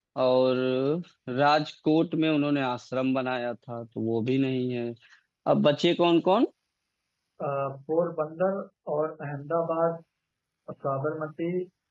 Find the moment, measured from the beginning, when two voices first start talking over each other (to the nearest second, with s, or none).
none